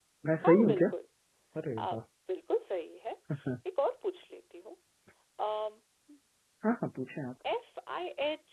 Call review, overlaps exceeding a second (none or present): none